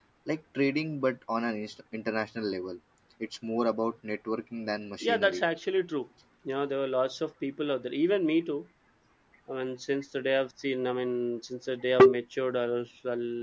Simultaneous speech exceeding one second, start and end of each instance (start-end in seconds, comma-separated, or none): none